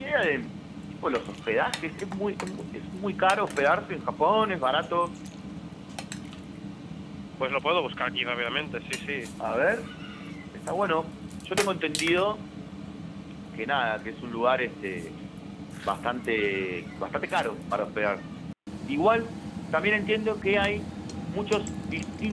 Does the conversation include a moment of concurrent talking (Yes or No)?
No